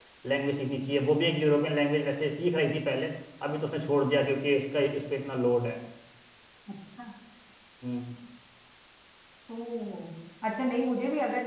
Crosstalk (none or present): none